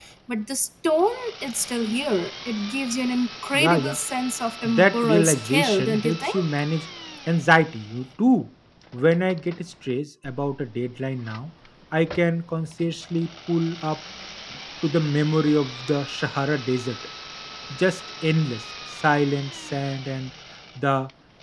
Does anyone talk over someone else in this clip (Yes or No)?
Yes